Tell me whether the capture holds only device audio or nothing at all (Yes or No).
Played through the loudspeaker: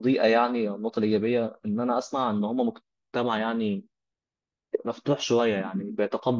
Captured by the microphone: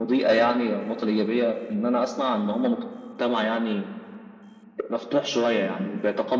Yes